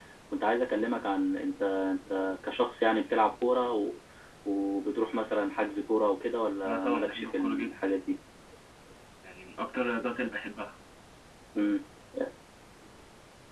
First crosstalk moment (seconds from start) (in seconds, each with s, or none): 6.7 s